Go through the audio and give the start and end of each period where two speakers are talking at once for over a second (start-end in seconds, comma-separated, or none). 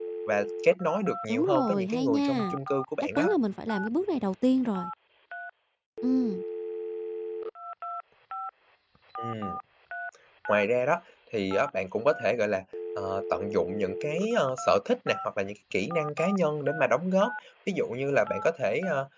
1.3-2.5